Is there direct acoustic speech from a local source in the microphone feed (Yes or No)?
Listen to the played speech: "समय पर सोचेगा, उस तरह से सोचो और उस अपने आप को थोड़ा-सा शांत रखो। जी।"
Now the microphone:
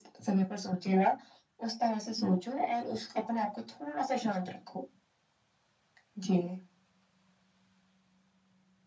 No